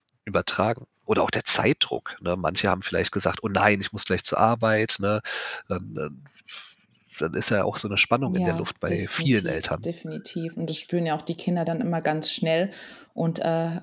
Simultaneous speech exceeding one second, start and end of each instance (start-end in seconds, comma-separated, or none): 8.3-9.9